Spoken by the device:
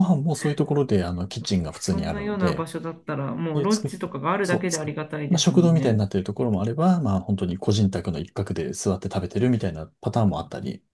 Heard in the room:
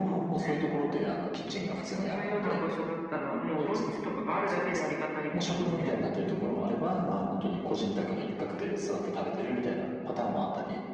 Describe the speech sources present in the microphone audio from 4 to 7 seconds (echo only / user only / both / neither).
echo only